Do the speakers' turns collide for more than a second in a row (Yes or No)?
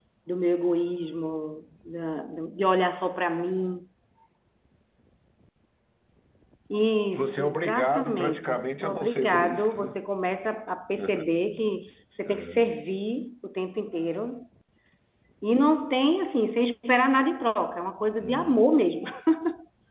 Yes